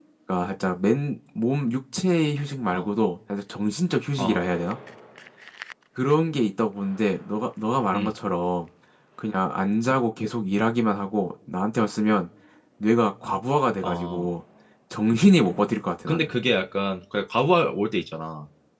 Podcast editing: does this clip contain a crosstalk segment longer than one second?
No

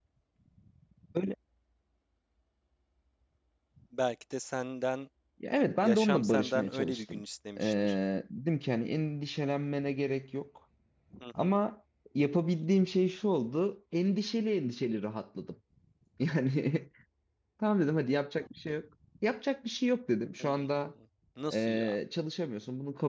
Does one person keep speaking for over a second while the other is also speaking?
Yes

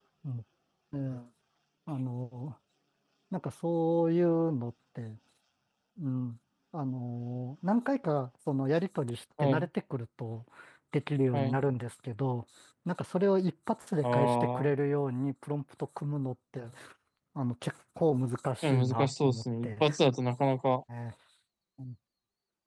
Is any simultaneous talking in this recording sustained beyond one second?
Yes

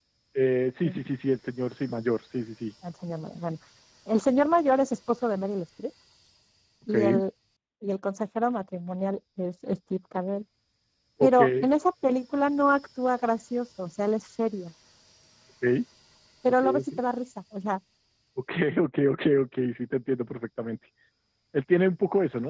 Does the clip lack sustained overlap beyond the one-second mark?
Yes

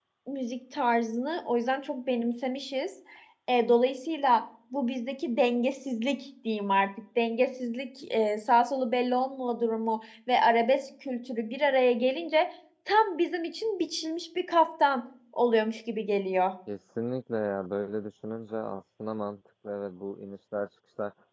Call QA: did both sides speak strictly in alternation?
Yes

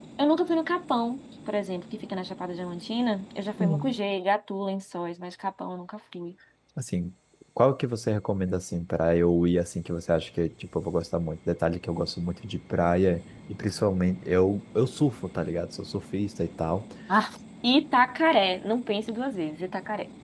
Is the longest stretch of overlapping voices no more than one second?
Yes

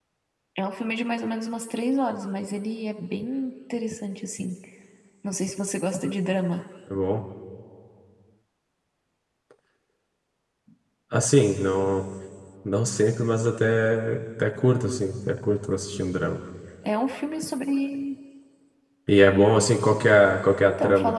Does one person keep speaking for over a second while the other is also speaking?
No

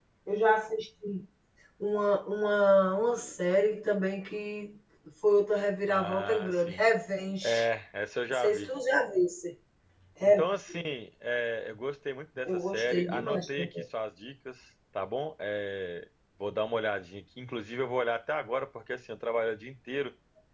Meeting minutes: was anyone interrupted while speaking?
Yes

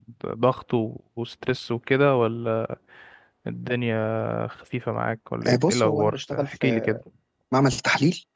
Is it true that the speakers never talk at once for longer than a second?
No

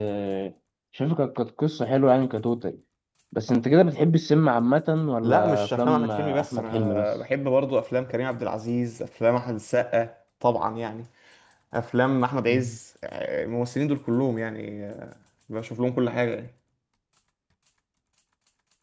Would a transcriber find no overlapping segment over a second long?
No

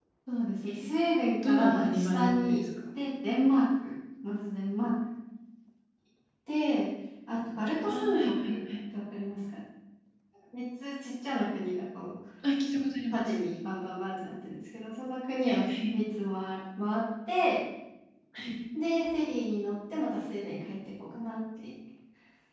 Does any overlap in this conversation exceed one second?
Yes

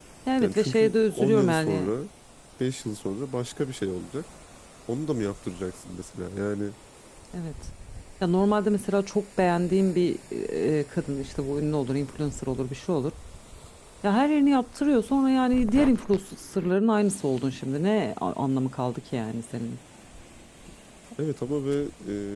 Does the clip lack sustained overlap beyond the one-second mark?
No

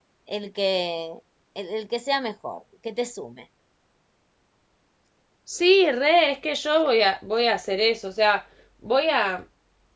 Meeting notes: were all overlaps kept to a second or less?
Yes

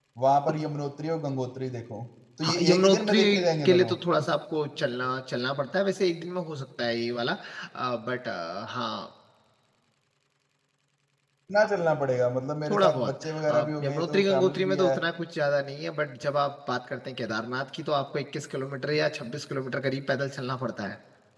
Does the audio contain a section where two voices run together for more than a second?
Yes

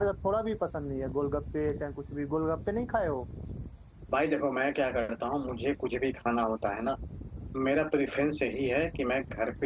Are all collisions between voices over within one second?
Yes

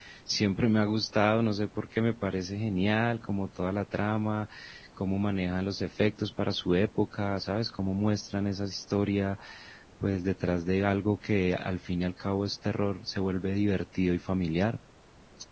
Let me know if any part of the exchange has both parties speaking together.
No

